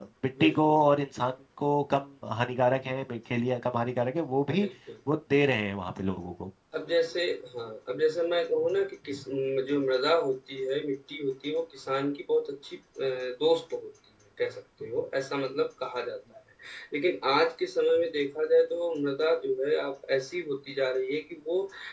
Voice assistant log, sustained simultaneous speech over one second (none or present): none